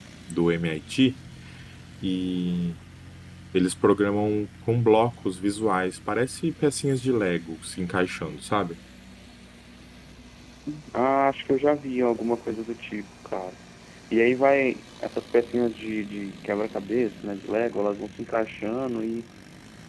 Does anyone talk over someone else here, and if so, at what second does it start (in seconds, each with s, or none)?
none